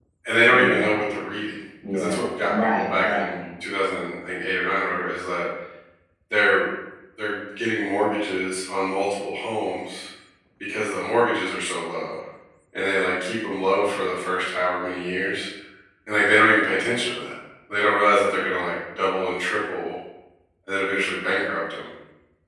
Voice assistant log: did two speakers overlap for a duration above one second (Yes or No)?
Yes